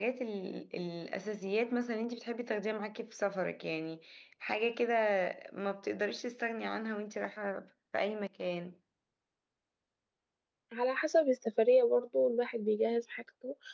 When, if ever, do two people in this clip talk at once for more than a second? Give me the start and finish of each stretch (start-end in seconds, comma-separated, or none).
none